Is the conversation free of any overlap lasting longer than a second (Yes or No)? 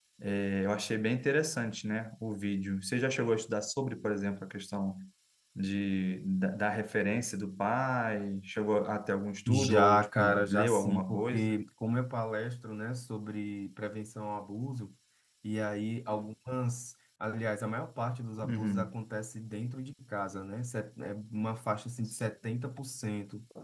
No